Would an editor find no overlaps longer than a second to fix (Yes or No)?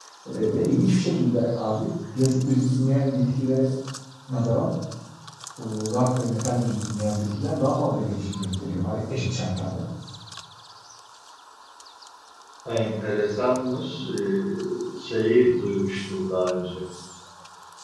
Yes